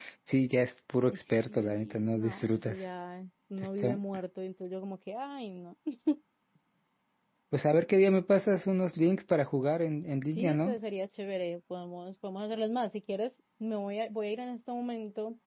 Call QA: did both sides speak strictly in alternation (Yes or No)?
No